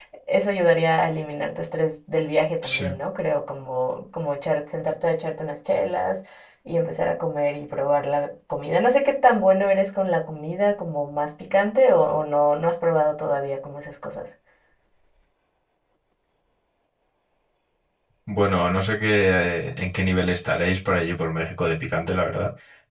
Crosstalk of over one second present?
No

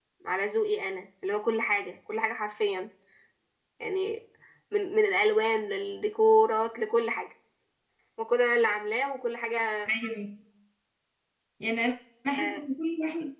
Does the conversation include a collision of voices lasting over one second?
No

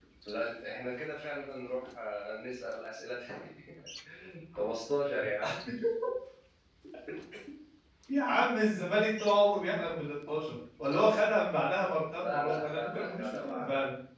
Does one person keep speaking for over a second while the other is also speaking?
Yes, from 12.2 s

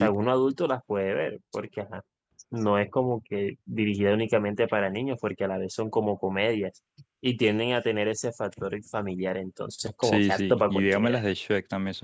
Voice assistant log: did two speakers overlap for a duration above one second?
Yes, from 10.0 s

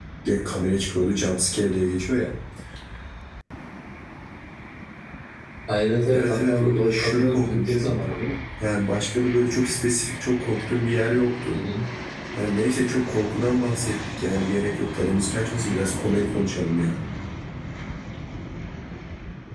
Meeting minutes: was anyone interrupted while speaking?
Yes, from 6.1 s

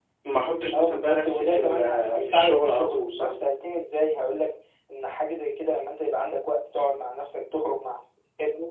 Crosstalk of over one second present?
Yes, from 0.7 s

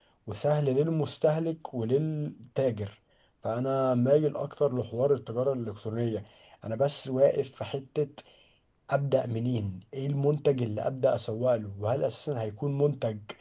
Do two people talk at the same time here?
No

